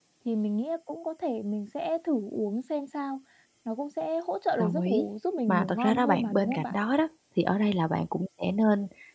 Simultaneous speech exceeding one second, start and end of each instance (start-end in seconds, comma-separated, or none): 5.5-6.8